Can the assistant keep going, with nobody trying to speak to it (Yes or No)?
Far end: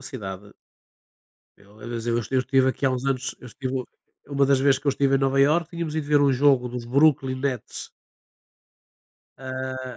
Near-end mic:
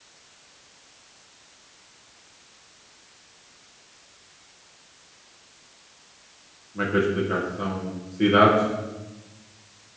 No